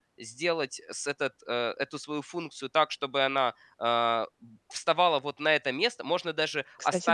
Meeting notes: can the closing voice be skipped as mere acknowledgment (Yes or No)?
Yes